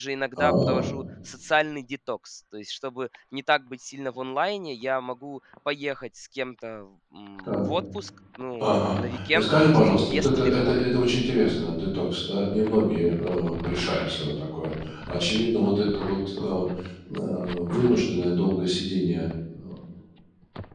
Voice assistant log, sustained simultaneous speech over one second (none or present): present